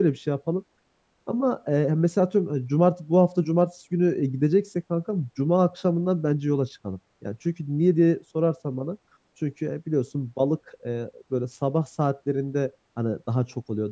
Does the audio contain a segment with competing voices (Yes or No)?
No